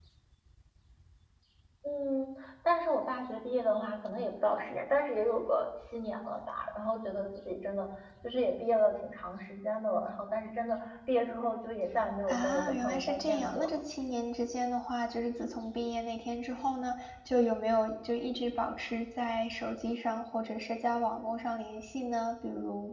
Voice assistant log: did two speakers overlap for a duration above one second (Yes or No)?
Yes